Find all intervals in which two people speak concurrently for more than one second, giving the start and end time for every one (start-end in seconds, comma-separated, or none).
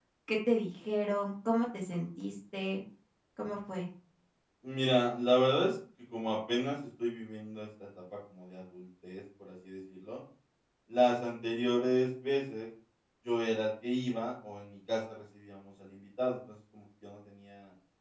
none